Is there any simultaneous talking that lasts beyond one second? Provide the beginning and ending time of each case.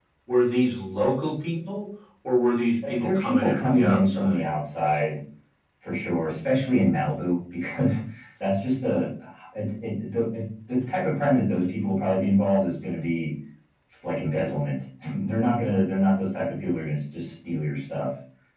3.0-4.4

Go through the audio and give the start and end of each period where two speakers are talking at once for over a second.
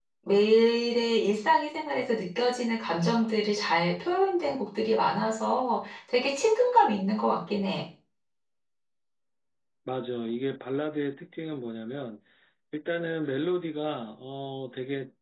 none

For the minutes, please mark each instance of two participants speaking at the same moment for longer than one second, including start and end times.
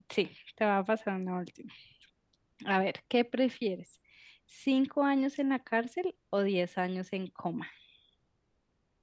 none

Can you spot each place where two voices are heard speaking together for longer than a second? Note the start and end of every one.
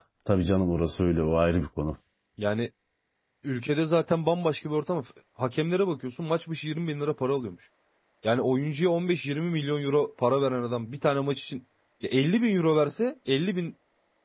none

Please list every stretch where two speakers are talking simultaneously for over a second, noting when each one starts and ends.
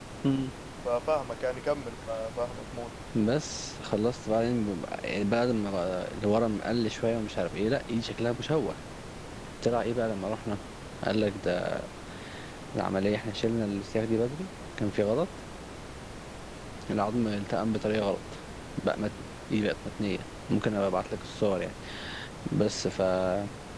none

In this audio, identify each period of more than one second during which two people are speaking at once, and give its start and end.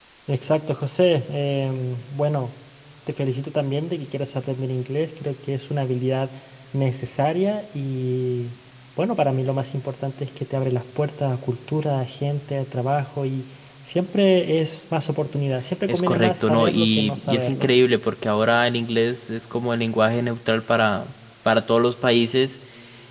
15.9-17.7

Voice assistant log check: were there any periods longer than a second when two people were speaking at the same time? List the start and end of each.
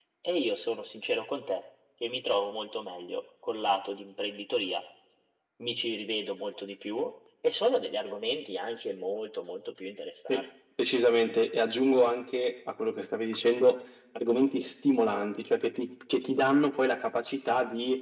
none

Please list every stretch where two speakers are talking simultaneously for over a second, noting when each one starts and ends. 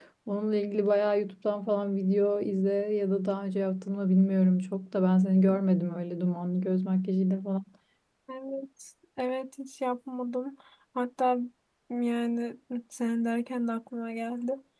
none

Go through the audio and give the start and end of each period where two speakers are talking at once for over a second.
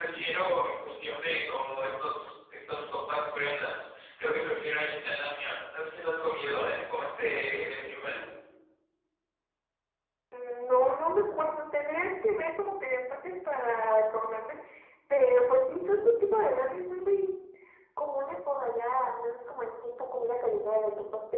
none

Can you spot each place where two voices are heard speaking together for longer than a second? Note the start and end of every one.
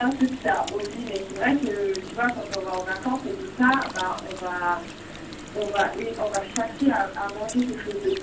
none

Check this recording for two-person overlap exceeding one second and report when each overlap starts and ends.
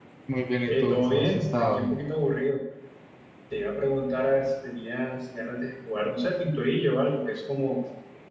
0.7-1.9

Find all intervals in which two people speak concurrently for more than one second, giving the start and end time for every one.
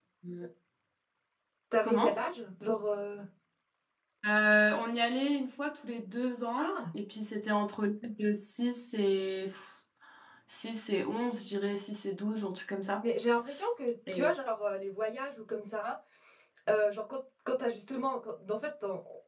none

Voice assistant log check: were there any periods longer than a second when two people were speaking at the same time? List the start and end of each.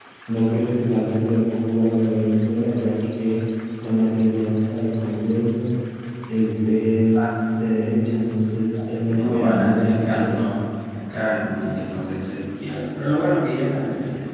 9.0-10.5

